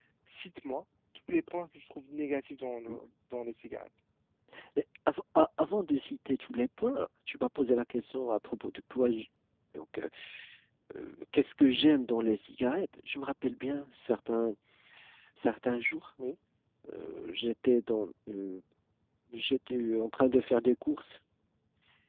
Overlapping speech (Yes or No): No